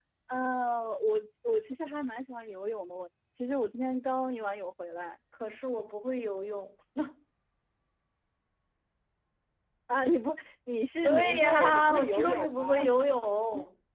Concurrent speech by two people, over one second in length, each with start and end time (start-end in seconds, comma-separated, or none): 11.0-12.8